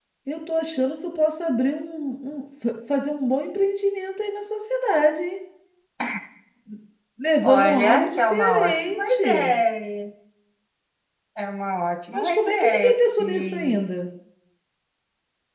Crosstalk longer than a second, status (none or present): present